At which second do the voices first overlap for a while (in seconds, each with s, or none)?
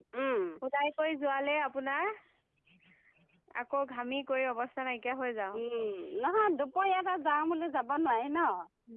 none